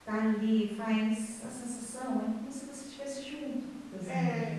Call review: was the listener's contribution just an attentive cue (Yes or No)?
No